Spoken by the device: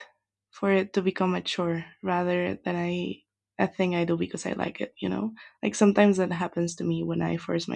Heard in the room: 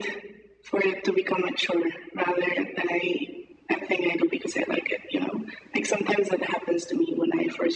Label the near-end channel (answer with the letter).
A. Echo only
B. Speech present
A